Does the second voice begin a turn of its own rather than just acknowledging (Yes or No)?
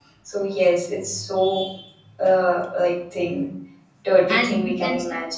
Yes